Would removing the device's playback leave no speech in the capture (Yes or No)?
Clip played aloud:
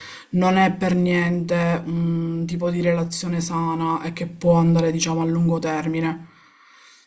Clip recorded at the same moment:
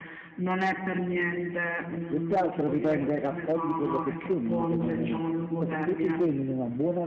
No